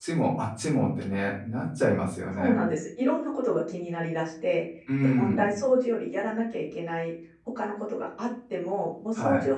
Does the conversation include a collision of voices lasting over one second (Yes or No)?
No